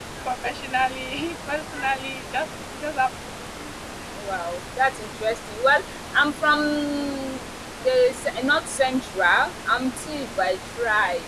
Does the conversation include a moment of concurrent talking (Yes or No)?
No